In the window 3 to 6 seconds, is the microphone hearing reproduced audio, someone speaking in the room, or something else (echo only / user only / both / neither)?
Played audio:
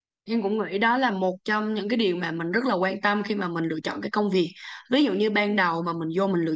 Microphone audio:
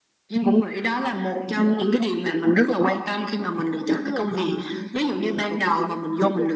both